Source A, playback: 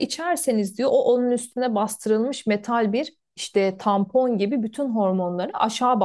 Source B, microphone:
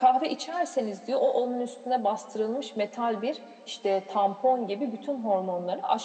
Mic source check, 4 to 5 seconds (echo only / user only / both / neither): echo only